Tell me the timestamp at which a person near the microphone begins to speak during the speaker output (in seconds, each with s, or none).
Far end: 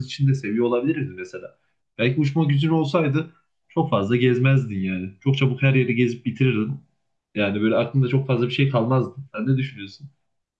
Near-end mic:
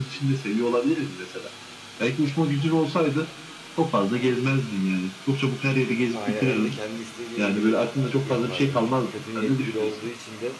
6.1 s